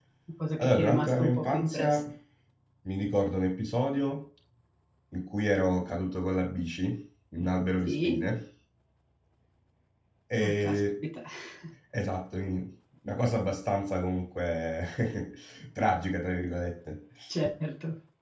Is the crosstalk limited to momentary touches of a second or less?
No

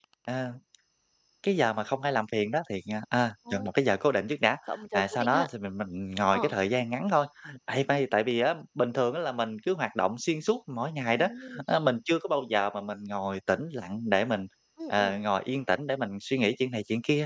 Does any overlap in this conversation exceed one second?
No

